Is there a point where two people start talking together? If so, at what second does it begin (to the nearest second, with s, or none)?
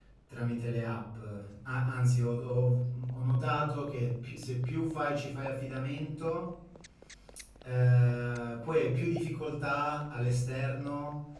none